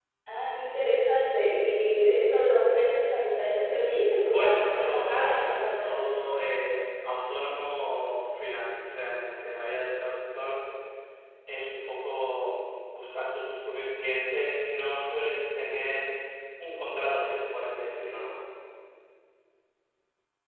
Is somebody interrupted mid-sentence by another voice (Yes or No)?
Yes